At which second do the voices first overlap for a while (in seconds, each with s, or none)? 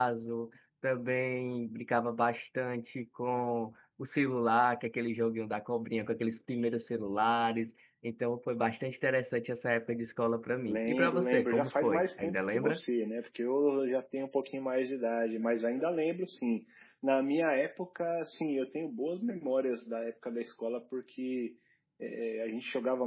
10.7 s